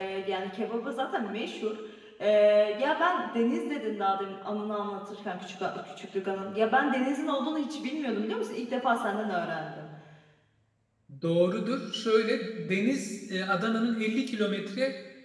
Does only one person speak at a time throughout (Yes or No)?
Yes